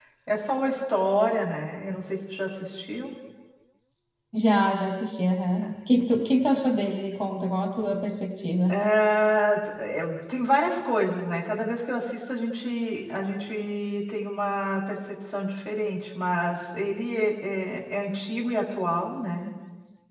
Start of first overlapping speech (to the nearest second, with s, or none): none